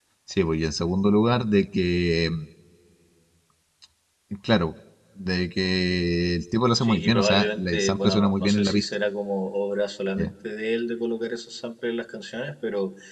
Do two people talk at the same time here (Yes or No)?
Yes